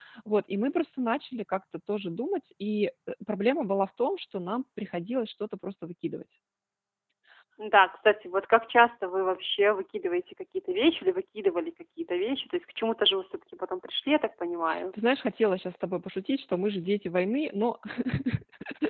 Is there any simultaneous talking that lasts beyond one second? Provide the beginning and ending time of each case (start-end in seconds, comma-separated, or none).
none